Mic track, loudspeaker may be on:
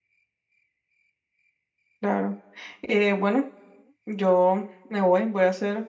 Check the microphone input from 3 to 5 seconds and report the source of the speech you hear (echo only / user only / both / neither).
user only